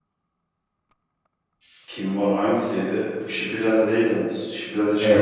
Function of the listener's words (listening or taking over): taking over